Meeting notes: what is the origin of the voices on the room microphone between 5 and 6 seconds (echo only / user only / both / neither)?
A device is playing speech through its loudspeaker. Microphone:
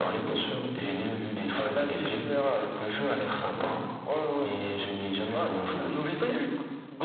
echo only